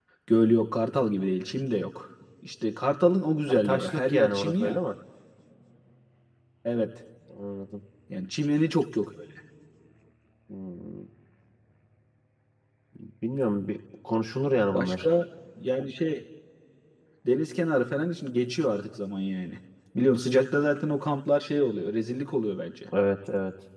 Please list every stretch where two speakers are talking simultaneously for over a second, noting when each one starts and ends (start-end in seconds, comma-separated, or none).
3.5-4.8